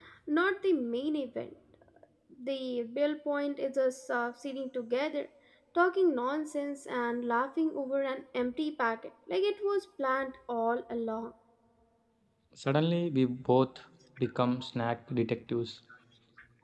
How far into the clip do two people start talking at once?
none

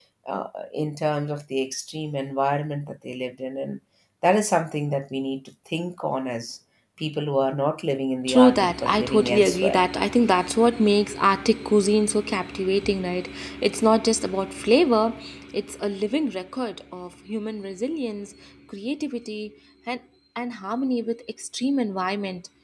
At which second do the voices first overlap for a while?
8.3 s

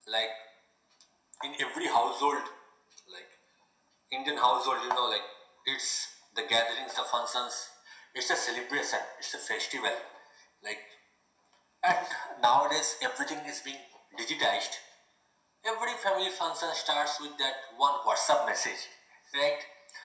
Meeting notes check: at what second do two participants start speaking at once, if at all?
none

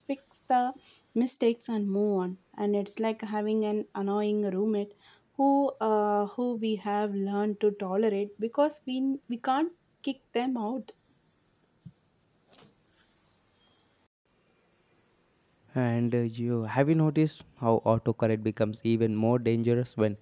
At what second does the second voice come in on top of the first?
none

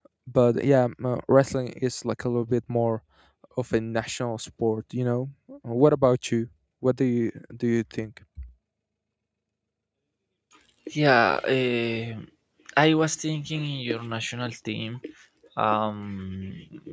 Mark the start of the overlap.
none

